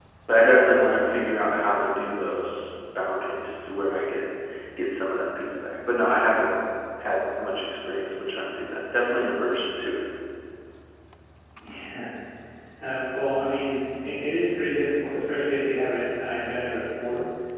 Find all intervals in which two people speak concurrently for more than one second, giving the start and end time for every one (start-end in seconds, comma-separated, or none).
none